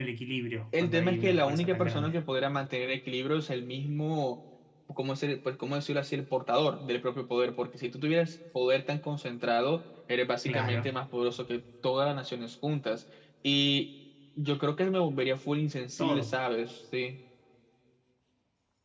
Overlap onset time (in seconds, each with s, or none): 0.7 s